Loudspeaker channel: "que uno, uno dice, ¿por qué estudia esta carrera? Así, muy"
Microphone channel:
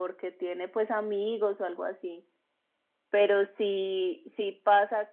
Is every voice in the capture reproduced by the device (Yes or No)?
No